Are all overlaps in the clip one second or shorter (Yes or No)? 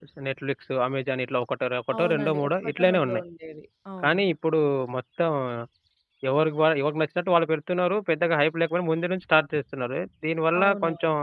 No